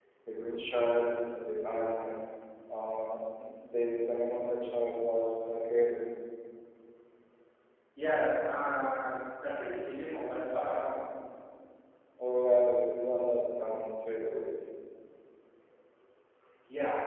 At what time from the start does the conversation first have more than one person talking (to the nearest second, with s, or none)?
none